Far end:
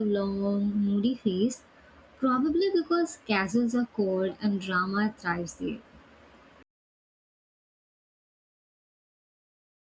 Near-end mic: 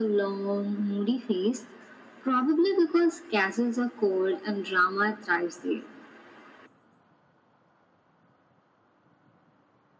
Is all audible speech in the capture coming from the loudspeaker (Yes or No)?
Yes